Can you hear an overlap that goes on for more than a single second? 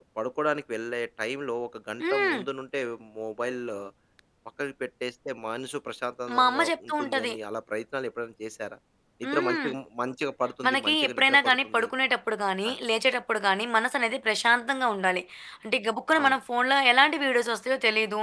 Yes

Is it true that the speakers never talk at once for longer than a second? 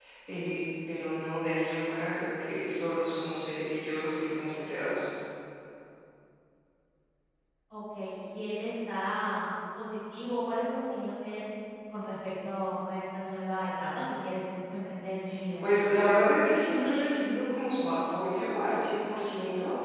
Yes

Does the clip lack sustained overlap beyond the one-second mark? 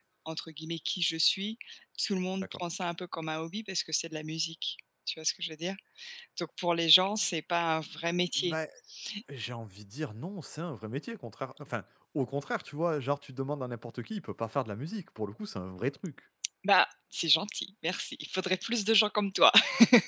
Yes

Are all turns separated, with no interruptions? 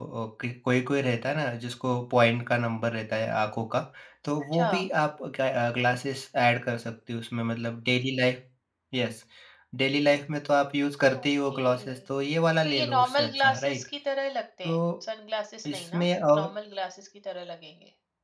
No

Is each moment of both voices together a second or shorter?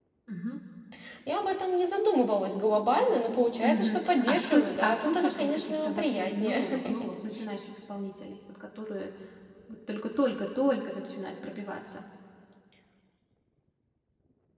No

